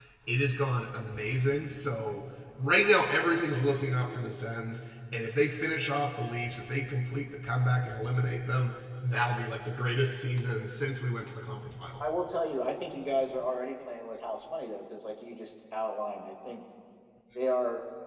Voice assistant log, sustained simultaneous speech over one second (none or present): none